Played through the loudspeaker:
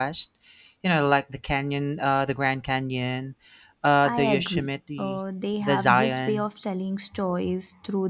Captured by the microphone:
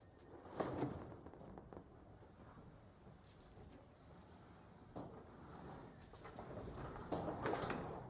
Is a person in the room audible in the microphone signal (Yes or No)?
No